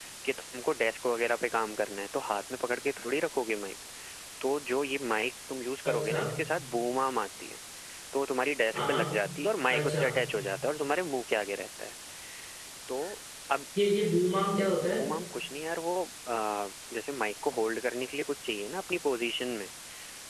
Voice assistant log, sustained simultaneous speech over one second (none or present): none